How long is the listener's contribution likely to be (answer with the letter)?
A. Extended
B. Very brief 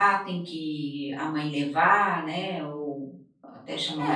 A